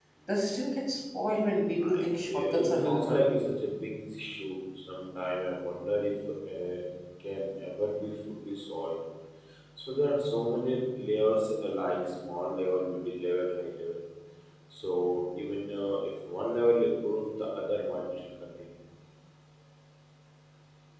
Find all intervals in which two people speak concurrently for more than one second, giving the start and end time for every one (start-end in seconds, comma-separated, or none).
1.8-3.2